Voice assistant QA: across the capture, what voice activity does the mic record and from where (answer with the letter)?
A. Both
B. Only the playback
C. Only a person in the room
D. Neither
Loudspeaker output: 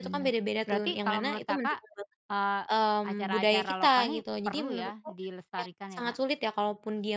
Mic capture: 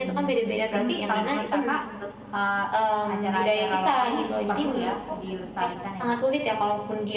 A